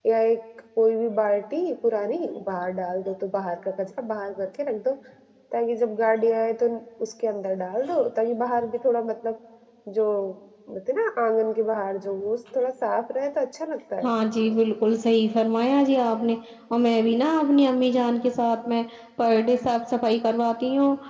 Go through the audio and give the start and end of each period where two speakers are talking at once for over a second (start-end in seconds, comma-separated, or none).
none